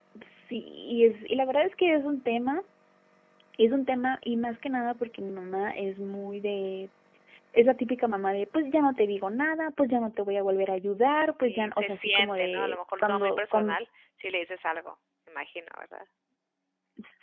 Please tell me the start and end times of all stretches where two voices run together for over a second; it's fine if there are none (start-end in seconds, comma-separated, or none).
11.2-13.8